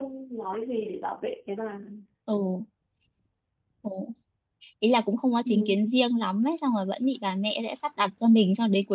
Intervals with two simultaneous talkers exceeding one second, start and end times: none

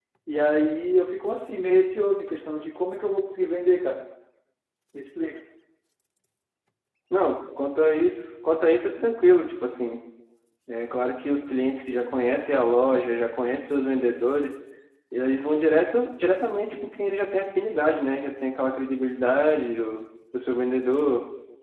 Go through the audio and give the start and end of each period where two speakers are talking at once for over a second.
none

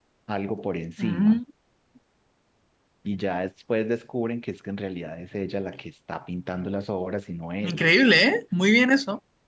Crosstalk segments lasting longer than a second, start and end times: none

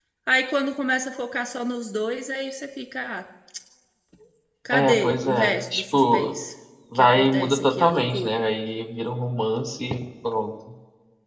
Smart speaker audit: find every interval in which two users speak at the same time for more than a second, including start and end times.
4.7-6.3, 7.0-8.4

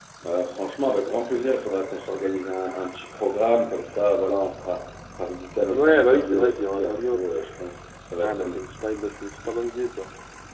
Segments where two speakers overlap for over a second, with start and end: 5.7-7.2

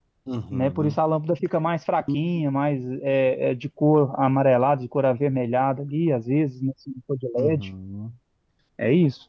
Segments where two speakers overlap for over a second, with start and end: none

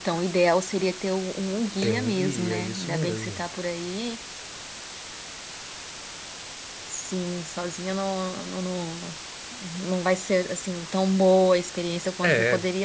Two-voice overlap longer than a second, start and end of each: 1.8-3.4

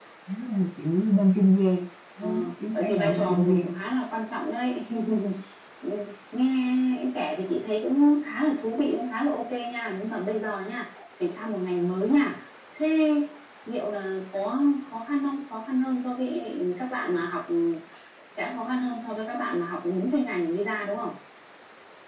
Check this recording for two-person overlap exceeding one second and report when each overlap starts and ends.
2.2-3.8

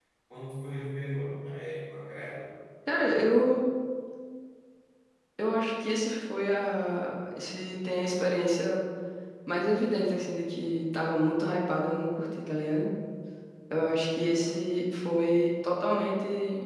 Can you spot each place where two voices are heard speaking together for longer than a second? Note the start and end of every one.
none

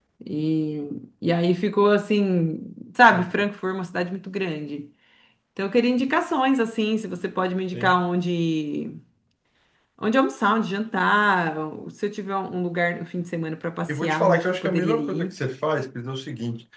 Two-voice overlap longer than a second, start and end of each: 13.9-15.3

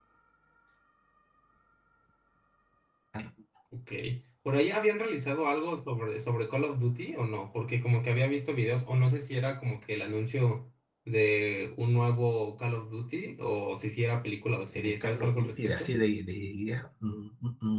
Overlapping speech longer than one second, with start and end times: 14.7-15.9

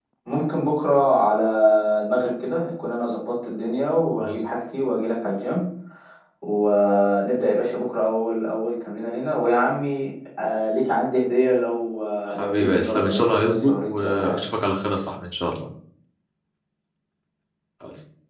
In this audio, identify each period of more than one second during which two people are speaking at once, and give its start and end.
12.4-14.4

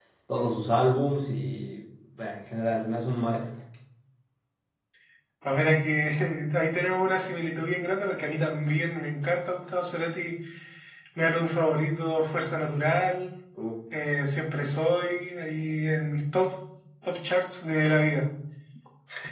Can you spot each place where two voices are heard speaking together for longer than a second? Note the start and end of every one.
none

